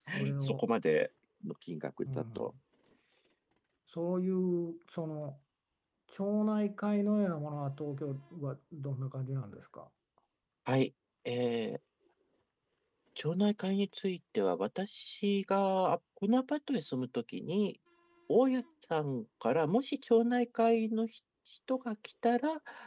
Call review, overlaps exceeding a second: none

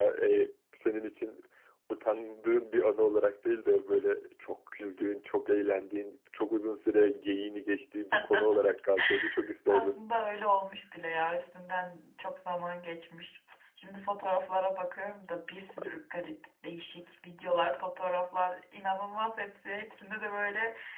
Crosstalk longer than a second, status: none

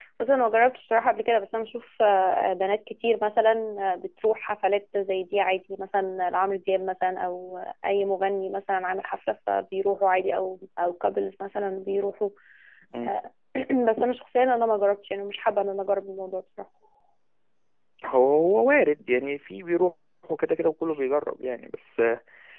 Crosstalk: none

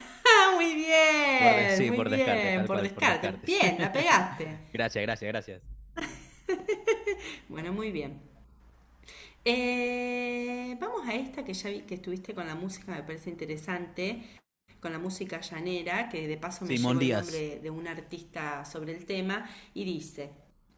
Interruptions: present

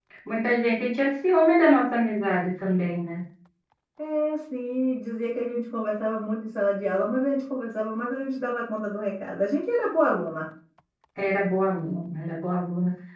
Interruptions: none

